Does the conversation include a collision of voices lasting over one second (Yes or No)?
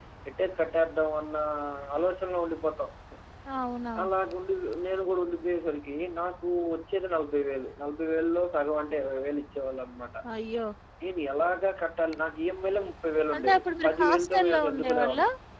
Yes